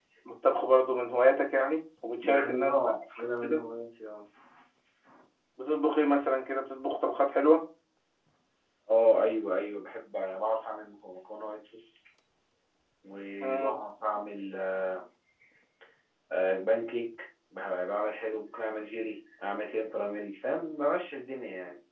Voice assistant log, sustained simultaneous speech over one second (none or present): present